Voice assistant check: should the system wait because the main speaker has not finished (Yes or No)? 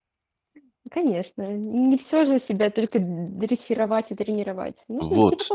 No